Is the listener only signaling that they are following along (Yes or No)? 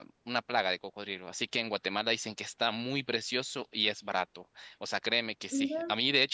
Yes